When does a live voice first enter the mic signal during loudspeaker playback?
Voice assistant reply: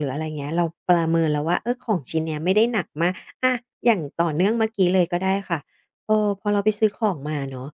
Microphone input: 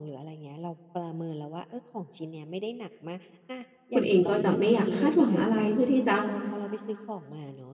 3.9 s

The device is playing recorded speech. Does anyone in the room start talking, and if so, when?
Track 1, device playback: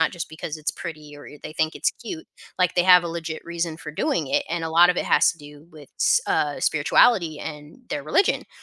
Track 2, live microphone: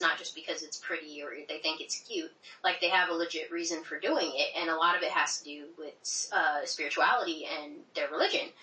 none

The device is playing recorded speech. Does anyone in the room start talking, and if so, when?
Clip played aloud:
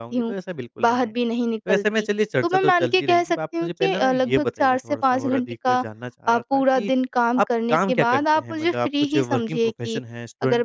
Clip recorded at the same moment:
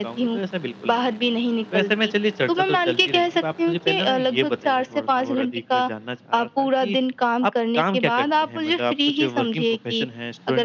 none

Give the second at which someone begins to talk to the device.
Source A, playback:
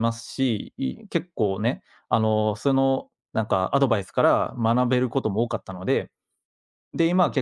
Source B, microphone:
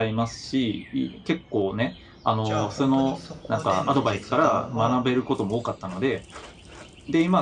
2.4 s

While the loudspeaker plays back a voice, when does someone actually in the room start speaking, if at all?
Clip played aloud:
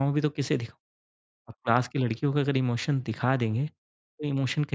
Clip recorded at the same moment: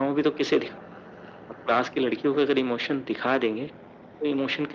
none

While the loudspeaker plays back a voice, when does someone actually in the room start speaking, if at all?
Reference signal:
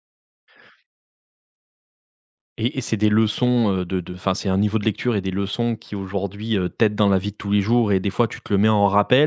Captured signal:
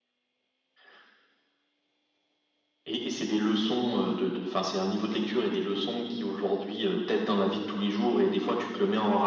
none

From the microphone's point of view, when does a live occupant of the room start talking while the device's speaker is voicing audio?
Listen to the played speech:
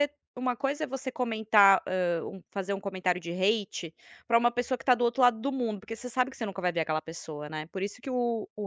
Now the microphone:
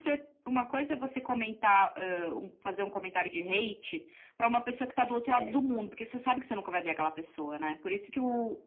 5.2 s

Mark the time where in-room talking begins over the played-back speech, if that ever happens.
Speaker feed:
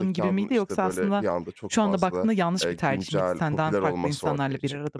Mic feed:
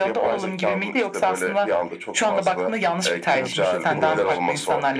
3.3 s

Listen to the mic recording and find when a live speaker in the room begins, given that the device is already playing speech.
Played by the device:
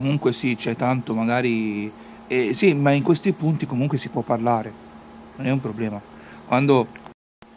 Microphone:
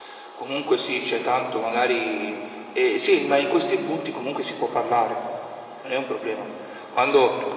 none

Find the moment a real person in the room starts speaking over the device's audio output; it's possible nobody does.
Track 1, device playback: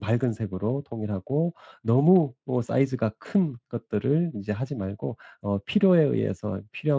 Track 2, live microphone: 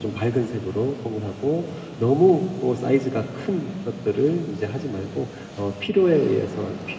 none

